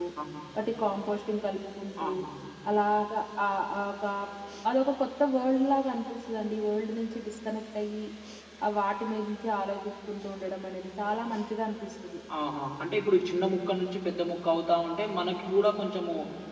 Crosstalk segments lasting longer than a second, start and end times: none

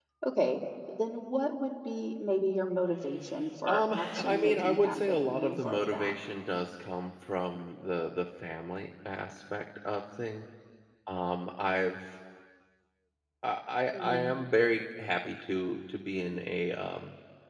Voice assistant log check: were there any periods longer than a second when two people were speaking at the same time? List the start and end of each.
3.7-6.1

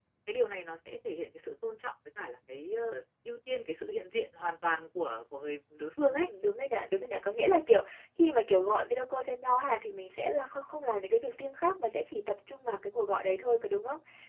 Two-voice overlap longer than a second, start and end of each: none

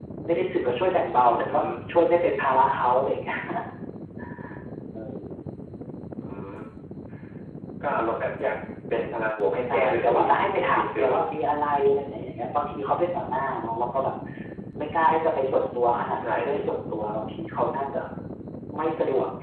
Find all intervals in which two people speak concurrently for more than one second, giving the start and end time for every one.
9.7-11.2

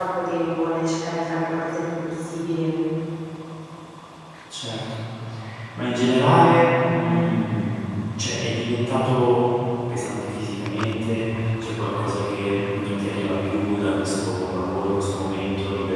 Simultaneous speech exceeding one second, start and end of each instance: none

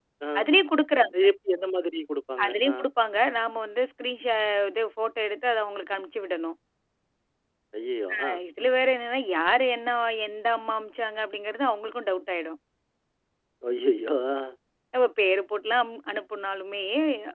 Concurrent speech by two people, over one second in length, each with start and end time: none

